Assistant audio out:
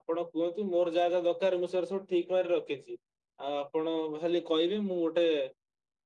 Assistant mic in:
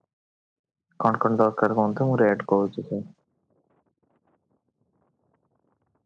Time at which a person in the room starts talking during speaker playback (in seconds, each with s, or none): 1.0 s